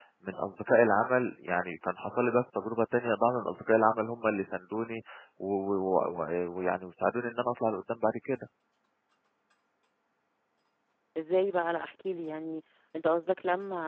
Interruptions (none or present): none